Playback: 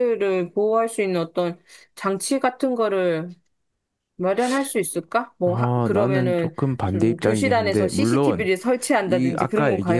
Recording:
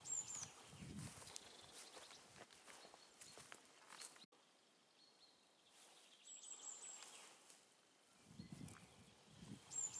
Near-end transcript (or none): none